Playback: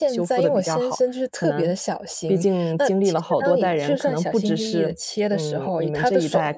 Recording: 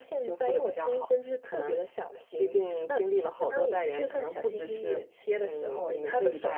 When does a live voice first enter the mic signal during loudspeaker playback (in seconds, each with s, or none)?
none